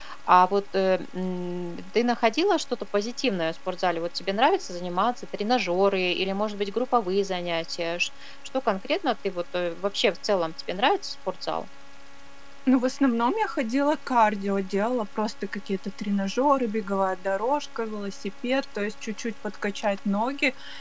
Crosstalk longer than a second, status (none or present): none